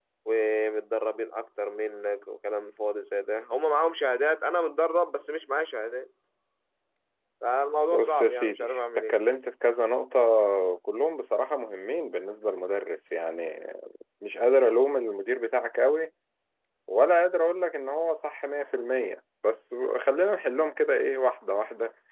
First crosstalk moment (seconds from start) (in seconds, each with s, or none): 7.9 s